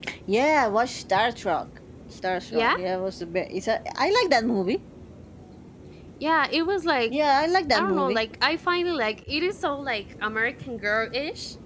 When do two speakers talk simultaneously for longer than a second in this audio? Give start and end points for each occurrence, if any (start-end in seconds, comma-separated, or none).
none